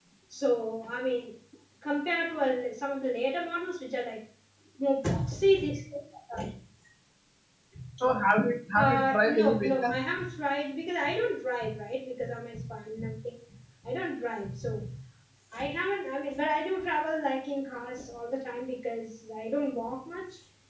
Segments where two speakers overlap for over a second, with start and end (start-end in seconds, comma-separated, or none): 8.7-10.0